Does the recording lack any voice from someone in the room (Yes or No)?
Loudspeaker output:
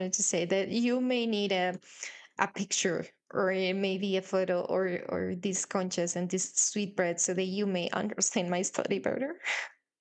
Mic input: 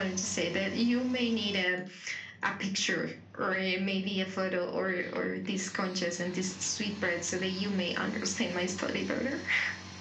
Yes